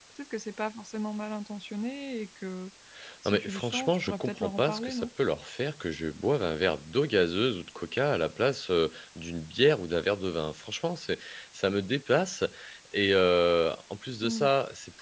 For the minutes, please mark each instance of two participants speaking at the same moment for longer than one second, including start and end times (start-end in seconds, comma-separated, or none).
3.2-5.1